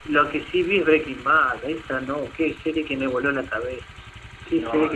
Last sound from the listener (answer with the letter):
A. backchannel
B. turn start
A